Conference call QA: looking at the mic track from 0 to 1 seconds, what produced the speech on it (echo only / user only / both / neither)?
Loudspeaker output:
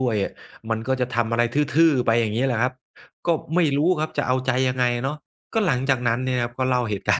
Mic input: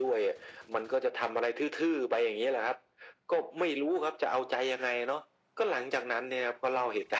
echo only